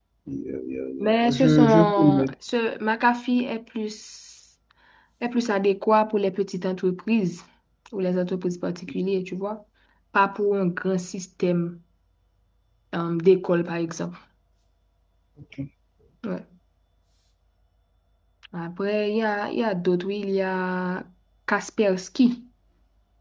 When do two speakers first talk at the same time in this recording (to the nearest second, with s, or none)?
1 s